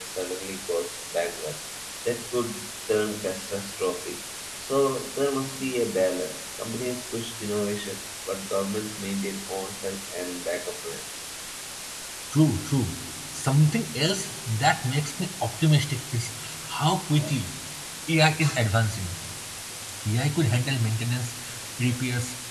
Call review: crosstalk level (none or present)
none